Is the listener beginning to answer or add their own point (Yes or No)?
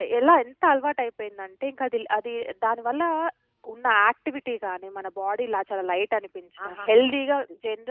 No